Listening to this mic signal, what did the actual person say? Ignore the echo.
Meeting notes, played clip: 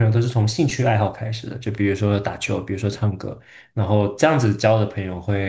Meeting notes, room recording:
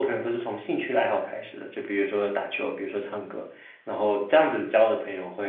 none

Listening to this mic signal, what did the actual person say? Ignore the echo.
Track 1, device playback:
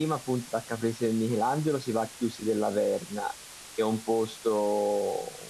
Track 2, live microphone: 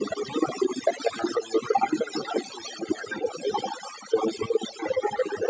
none

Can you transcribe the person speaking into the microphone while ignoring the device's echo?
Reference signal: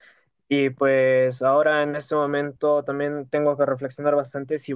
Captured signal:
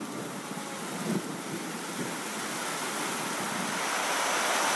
none

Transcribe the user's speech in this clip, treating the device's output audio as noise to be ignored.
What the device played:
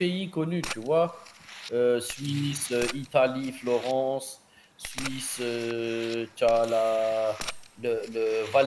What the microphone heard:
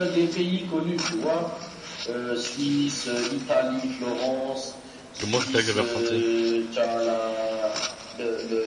Moi, c'est ça que j'avais ressenti.

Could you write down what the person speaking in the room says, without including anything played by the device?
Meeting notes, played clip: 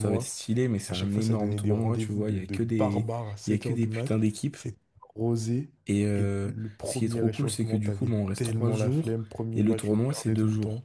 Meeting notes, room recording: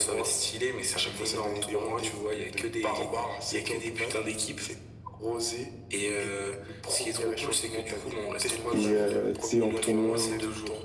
et euh, tu sais, en tournoi, genre?

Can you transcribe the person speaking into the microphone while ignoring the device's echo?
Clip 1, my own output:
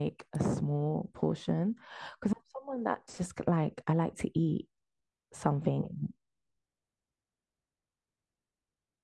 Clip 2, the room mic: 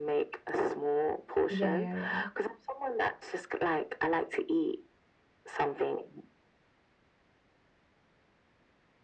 Yeah, yeah, yeah.

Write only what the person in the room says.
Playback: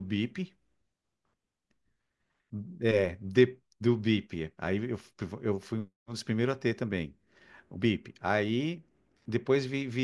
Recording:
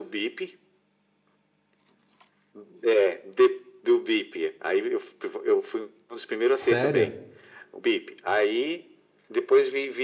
Sério?

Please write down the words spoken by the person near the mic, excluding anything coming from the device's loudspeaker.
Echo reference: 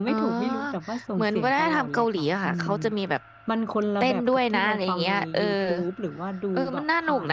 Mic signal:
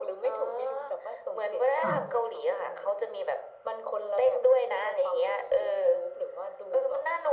ค่ะ

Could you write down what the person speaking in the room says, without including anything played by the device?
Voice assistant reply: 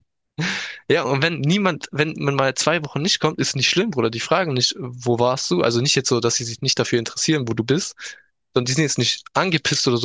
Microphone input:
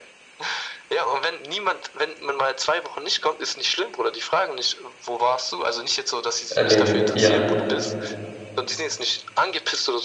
Äh, neben, ja.

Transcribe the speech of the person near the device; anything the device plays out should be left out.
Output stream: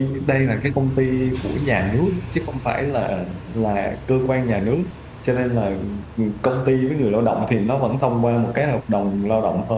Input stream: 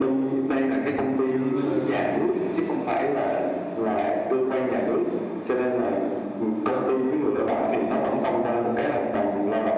ừm, chứ ờ,

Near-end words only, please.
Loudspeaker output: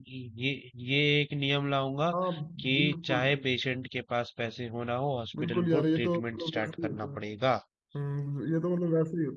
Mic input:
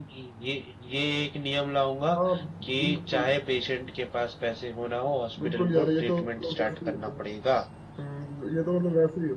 none

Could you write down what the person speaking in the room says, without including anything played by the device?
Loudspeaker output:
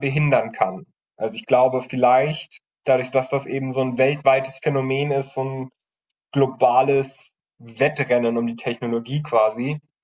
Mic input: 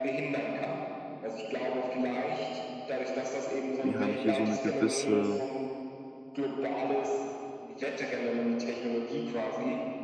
wir haben hier so eine gewisse,

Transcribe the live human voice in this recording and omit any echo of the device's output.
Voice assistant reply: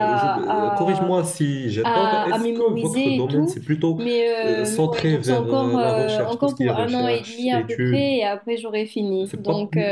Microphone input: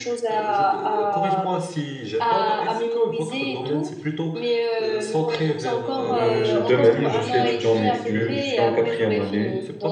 Euh, de même, je suis étudiant en médecine, je suis en quatrième année.

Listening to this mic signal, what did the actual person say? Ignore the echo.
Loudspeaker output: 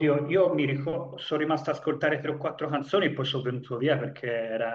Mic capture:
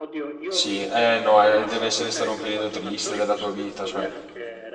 Sì, eh no, eh, deve essere stato un periodo triste della tua vita, cioè

